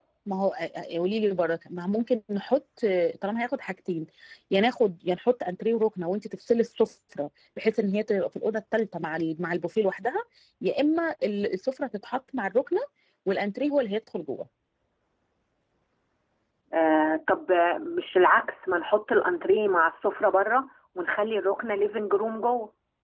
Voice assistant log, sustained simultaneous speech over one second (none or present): none